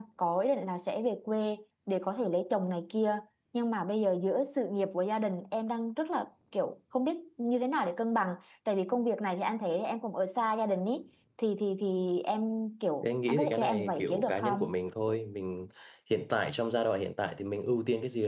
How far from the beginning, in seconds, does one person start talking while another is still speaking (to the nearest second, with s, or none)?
13 s